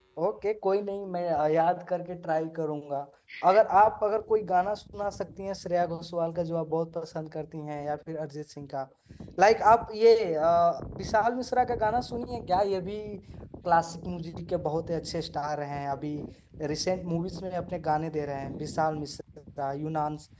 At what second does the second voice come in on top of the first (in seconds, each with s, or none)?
none